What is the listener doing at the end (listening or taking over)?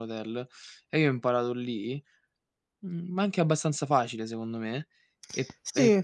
listening